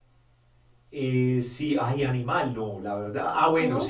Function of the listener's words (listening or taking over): listening